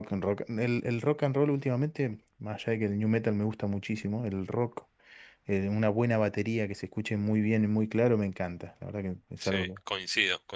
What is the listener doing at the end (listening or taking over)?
taking over